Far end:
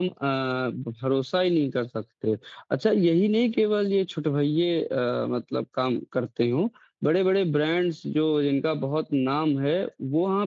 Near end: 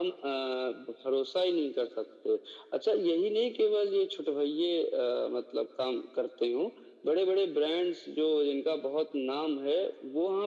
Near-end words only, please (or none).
none